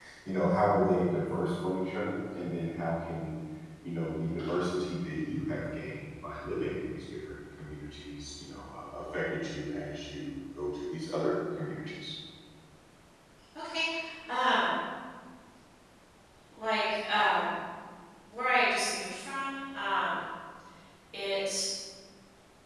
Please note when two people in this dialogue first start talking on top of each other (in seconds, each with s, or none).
none